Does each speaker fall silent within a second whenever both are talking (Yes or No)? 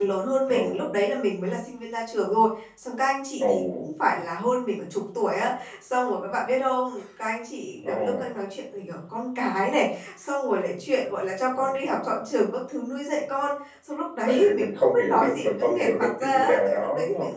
No